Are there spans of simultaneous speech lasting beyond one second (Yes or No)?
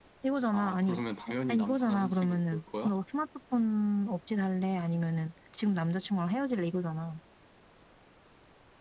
Yes